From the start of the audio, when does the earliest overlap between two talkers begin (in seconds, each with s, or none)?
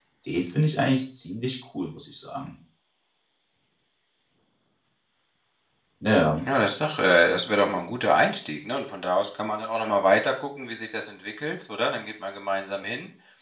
none